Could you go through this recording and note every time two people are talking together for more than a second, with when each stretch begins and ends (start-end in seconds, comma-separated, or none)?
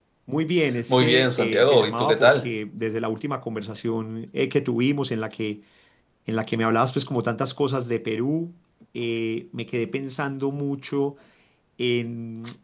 0.9-2.5